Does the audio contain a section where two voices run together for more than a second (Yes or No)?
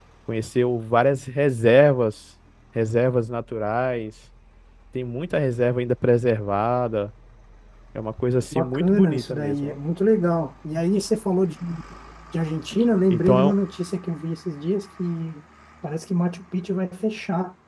Yes